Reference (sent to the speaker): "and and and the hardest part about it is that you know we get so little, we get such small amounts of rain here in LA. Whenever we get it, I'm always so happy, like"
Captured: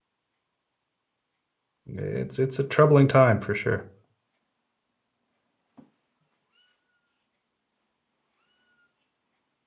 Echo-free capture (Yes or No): Yes